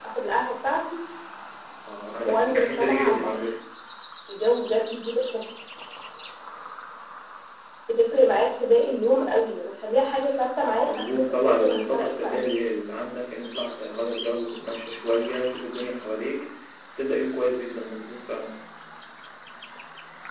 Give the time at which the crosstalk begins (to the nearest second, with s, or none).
2 s